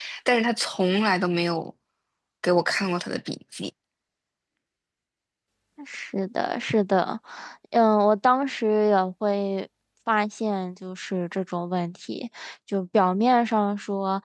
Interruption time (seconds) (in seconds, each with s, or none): none